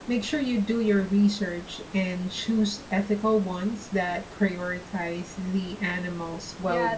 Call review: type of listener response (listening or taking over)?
taking over